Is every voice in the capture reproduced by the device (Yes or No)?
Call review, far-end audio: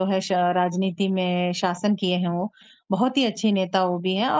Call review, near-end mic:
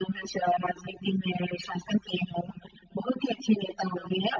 Yes